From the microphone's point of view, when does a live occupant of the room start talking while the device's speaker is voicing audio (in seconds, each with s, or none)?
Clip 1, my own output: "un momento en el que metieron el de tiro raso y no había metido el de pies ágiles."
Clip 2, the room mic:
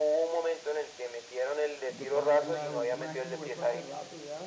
1.9 s